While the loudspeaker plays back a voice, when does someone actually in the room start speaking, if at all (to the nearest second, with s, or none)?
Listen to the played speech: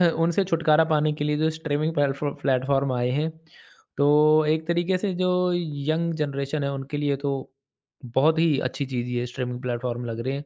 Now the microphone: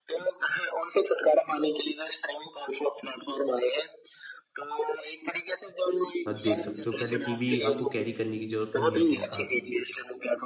6 s